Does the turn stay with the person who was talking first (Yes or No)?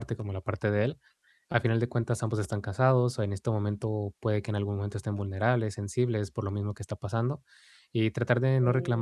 Yes